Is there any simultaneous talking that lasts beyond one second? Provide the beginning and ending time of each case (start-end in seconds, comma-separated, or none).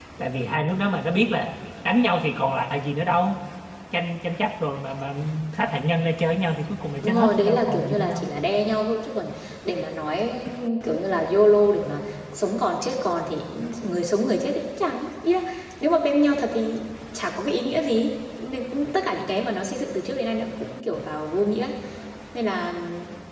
7.0-8.3